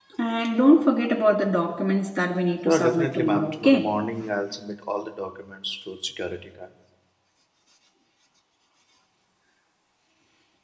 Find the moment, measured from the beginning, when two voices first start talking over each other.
3 s

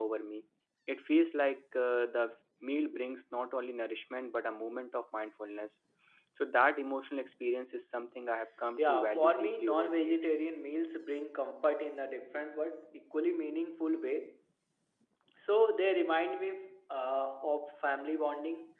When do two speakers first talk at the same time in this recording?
9 s

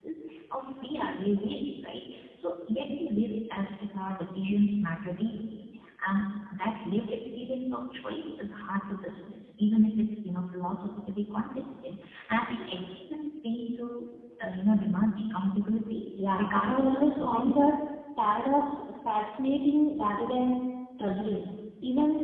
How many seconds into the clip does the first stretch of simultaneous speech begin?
16 s

